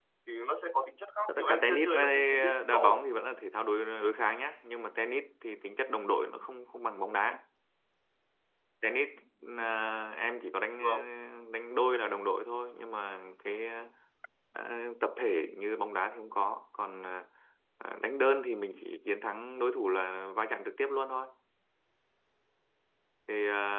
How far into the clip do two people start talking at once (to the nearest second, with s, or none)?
1 s